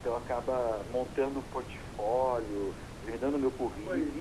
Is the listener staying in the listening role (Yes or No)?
No